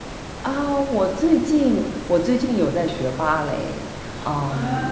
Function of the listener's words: listening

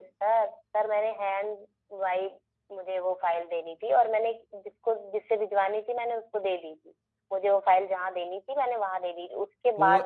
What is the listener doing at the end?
taking over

